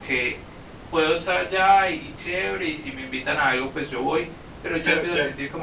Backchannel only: Yes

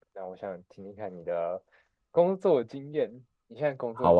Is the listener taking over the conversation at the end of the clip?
Yes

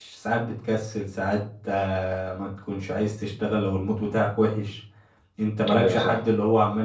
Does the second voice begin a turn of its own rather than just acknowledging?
No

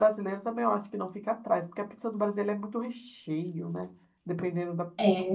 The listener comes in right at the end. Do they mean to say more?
Yes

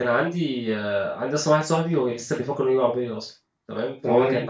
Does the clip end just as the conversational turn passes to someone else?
No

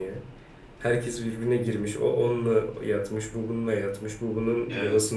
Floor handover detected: No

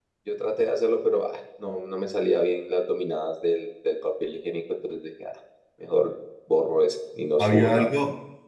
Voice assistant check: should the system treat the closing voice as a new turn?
Yes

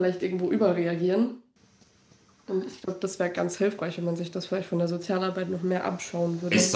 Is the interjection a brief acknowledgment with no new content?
No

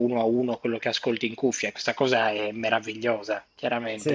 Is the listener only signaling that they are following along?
No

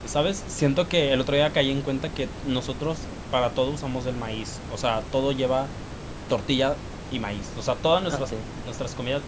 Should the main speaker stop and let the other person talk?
No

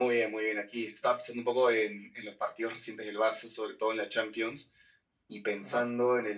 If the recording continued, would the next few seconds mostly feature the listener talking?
No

